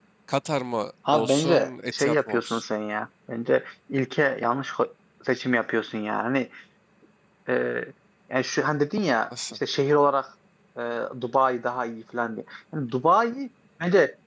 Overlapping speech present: Yes, from 1.1 s

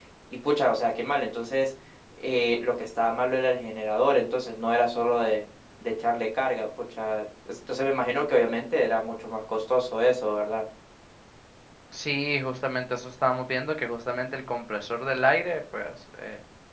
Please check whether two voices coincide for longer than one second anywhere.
No

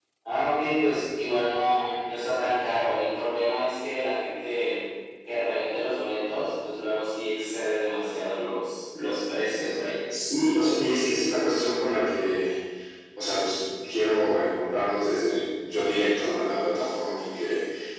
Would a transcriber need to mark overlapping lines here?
No

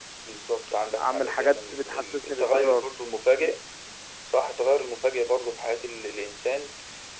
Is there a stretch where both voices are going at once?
Yes, from 1.0 s

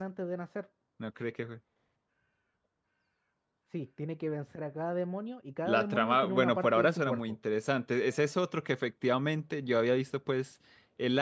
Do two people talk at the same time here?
Yes, from 5.7 s

